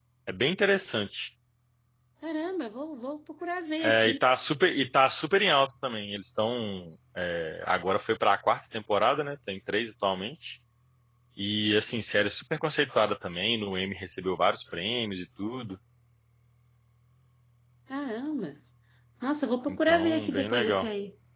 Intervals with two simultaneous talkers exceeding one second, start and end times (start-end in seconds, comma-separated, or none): 19.7-20.9